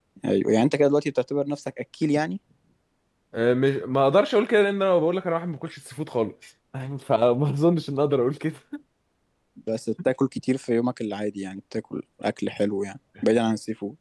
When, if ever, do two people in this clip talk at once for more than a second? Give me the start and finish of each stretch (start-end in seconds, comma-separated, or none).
none